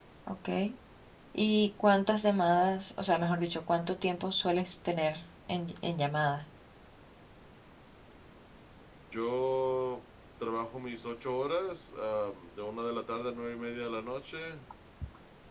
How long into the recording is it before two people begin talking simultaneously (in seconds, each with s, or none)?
none